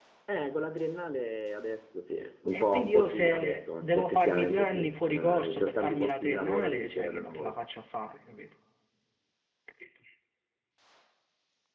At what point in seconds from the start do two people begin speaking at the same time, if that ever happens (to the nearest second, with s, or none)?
3 s